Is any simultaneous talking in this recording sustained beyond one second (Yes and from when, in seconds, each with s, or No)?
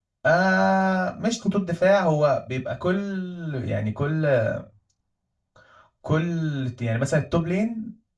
No